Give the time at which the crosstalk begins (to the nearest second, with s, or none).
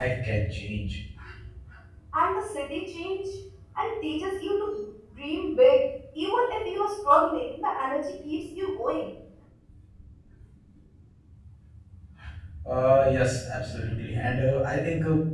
none